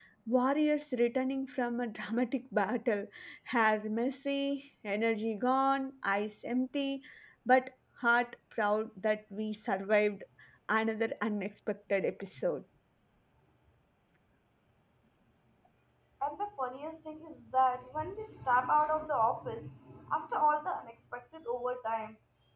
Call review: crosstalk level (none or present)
none